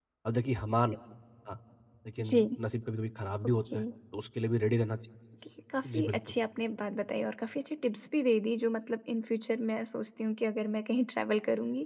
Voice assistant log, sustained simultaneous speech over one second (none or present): none